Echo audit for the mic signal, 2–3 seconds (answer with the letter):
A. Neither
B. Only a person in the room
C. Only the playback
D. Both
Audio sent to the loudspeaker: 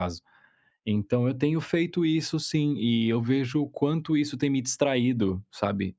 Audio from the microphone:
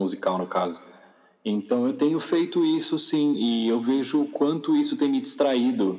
C